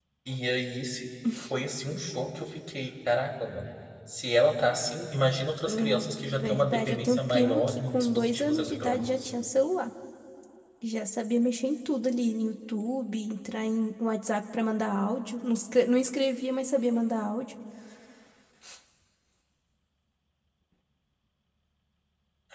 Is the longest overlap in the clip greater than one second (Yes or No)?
Yes